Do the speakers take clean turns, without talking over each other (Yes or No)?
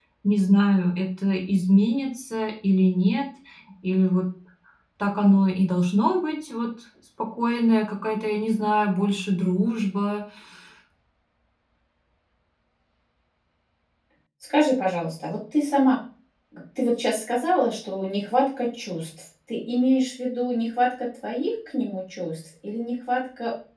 Yes